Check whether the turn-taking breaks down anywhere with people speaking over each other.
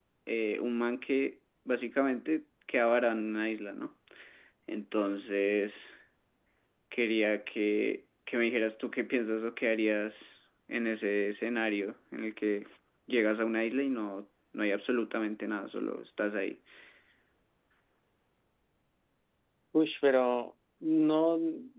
No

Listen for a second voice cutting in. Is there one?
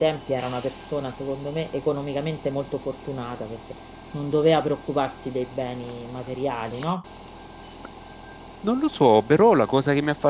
No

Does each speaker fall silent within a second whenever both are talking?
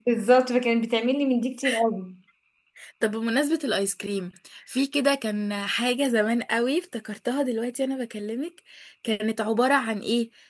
Yes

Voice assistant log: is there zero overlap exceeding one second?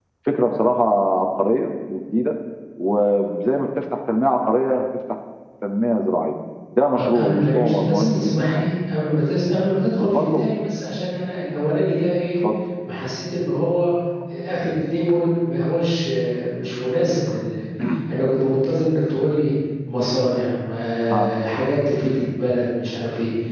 No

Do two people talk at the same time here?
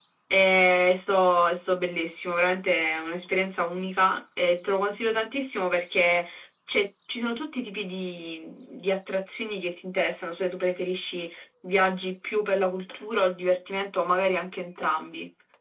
No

